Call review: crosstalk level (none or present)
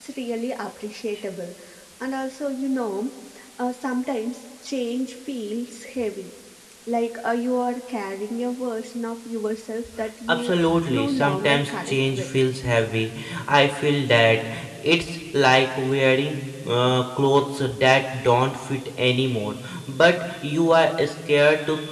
present